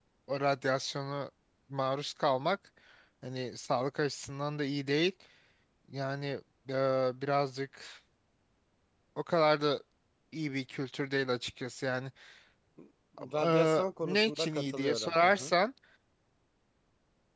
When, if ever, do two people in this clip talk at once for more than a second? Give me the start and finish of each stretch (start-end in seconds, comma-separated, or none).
13.4-15.5